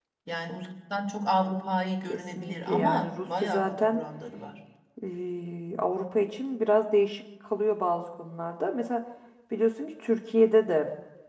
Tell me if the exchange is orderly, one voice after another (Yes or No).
No